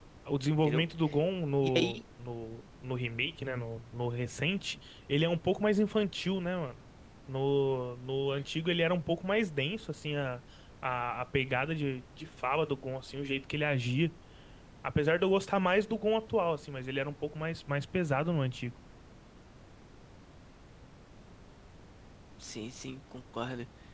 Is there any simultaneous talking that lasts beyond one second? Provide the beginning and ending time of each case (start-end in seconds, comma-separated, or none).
none